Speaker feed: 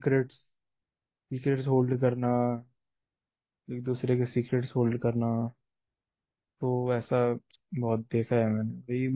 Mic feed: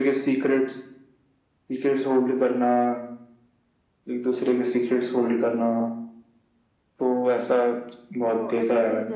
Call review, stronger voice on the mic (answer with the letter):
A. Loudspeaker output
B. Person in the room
A